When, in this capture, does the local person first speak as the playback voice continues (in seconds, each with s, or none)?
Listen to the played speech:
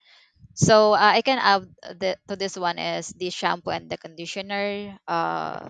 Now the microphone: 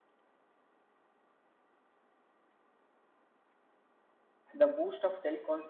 4.6 s